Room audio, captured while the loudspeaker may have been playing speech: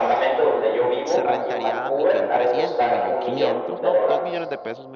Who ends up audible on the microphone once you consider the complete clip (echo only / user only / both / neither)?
both